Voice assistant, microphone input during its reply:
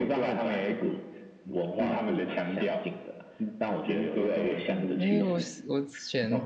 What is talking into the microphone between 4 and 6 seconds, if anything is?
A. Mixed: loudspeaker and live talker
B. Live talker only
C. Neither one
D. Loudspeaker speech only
A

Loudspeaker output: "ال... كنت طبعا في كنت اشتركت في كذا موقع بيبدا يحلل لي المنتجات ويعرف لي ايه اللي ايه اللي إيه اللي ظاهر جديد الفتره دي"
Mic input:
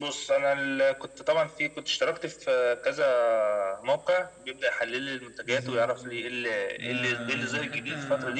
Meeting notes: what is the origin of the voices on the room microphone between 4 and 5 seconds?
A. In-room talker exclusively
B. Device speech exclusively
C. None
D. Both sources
B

